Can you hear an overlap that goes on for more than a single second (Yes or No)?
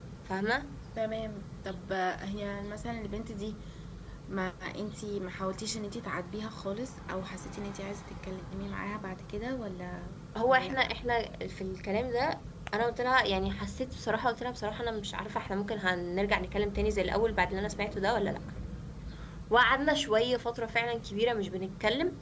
No